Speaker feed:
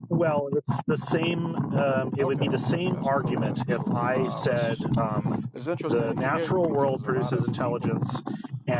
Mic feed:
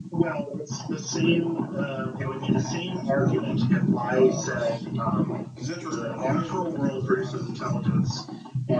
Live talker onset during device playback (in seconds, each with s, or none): none